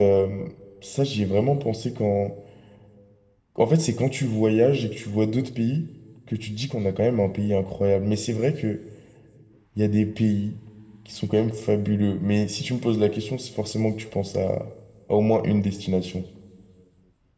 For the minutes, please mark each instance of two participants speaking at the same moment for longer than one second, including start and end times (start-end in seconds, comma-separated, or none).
none